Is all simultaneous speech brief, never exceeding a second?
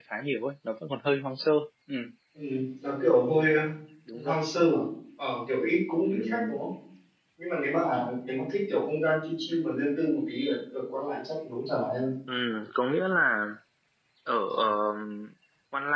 Yes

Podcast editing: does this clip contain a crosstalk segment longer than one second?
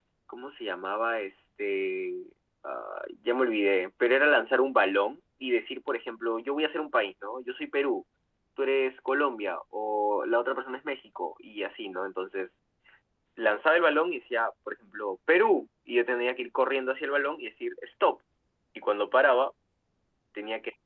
No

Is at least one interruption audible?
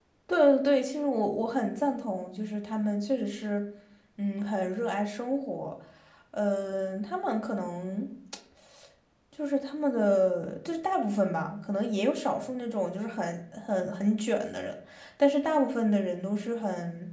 No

